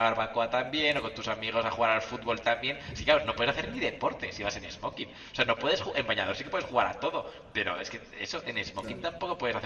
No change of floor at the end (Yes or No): Yes